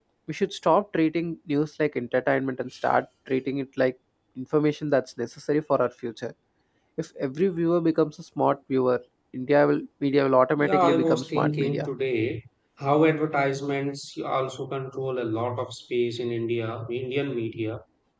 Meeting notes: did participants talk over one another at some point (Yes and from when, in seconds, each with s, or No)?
Yes, from 10.6 s